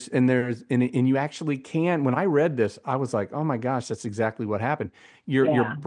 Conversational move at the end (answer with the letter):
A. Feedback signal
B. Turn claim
A